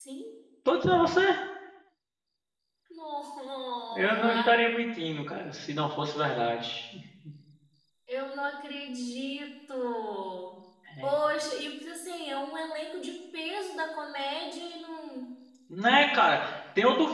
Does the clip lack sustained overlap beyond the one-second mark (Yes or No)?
Yes